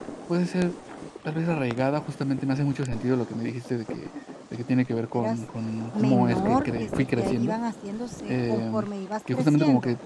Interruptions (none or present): present